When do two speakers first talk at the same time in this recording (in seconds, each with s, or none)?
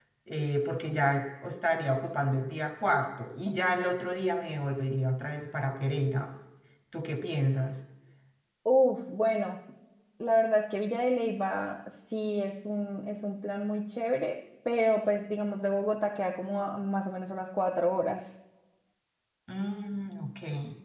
none